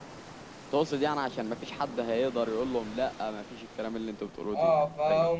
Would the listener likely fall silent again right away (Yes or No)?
No